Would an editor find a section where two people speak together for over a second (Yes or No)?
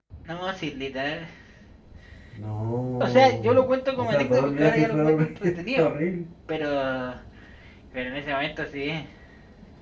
Yes